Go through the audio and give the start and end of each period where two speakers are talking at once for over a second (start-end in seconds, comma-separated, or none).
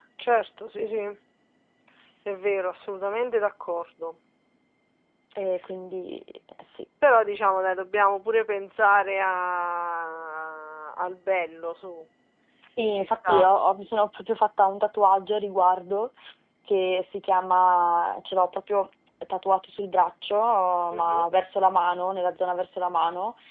none